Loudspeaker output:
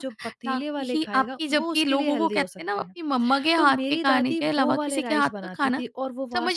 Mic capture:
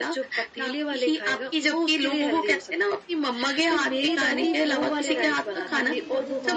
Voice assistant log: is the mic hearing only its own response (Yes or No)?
No